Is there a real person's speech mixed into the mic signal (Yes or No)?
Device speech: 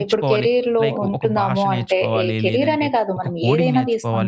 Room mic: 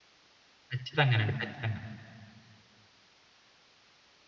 Yes